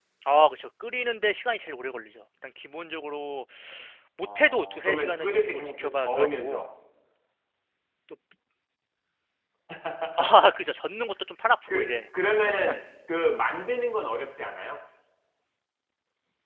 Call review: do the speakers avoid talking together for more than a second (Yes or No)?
No